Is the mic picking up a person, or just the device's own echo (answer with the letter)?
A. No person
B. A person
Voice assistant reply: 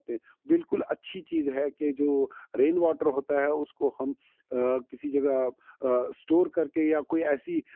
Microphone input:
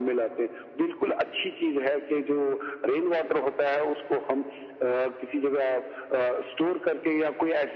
A